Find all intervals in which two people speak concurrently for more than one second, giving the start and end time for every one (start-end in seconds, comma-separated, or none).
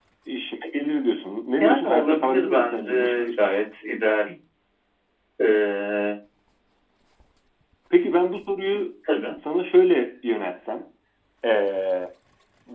1.6-3.5